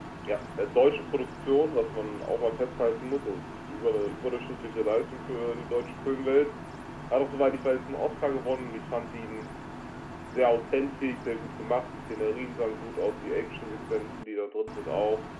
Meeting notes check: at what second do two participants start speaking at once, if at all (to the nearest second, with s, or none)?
none